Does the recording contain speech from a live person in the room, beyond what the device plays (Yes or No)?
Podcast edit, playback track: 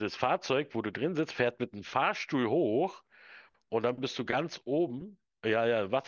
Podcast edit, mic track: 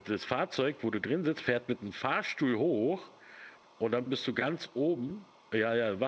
No